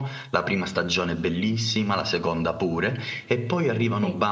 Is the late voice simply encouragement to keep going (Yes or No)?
Yes